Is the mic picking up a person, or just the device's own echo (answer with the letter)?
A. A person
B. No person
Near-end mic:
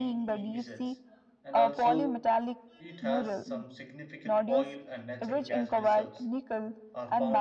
A